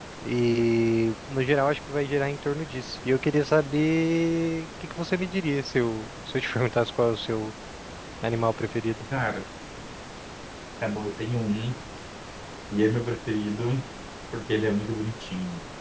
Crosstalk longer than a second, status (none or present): none